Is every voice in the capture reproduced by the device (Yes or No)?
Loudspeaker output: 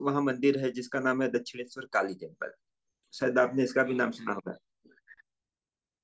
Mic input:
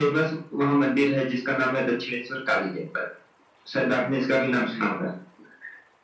Yes